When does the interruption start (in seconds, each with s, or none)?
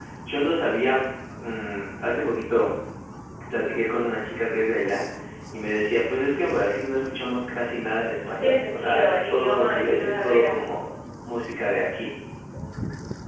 8.4 s